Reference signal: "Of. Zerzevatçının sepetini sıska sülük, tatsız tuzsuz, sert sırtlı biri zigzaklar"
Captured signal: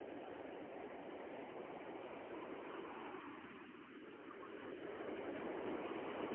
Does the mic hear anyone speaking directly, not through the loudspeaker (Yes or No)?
No